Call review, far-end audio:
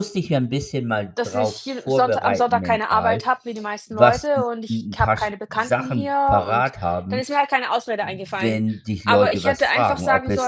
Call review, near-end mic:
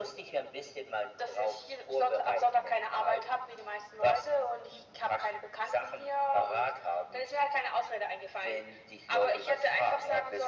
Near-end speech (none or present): none